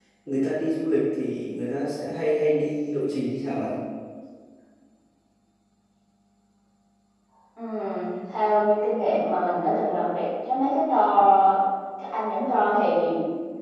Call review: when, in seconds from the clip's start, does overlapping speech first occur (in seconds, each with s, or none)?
none